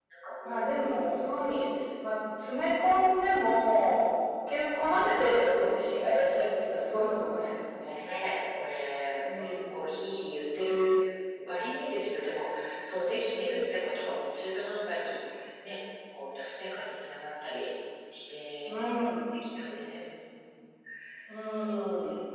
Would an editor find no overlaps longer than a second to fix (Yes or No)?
Yes